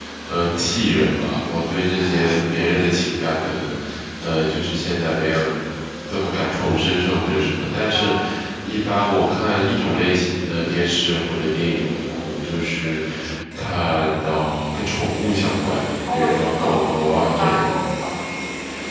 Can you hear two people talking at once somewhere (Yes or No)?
Yes